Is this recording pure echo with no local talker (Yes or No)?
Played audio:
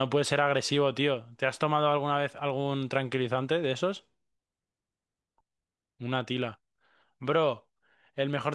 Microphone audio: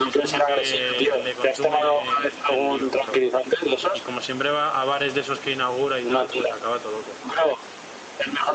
No